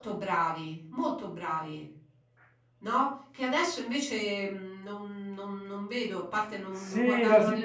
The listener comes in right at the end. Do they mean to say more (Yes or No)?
Yes